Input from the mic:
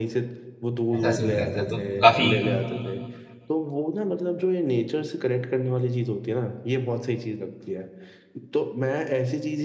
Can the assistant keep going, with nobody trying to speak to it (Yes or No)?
No